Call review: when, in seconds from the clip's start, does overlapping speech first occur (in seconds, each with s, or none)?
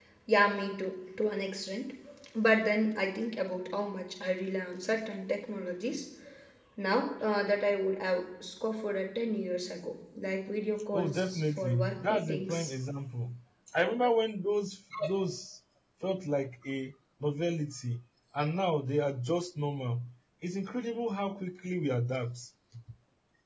10.9 s